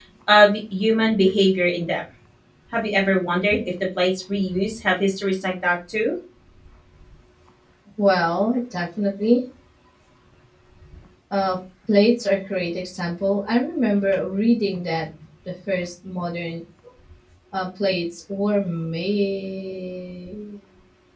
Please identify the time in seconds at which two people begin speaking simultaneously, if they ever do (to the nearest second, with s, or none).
none